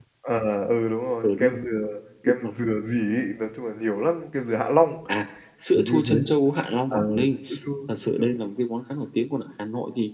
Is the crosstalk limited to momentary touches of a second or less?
Yes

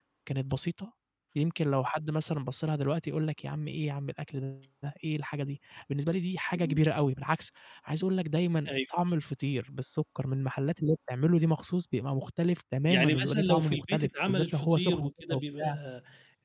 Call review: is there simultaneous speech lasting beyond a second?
Yes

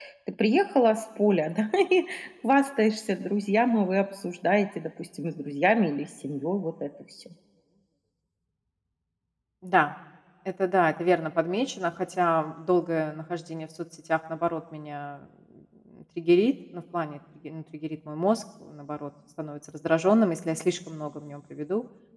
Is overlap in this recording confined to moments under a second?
Yes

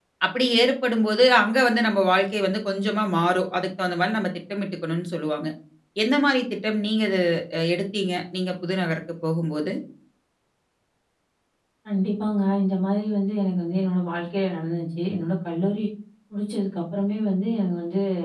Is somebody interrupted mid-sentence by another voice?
No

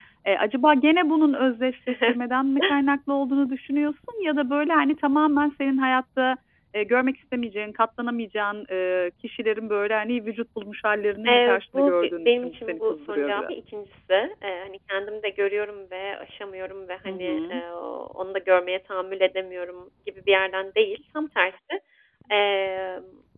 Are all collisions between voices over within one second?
No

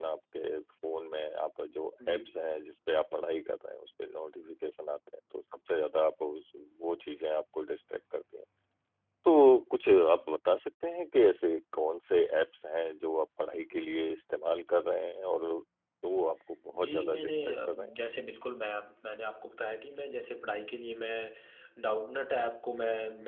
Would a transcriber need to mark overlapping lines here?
Yes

